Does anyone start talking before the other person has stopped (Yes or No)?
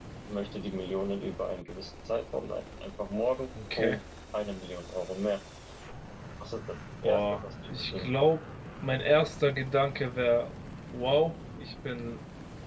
Yes